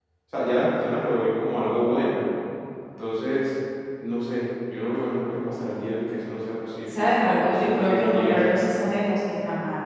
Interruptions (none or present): present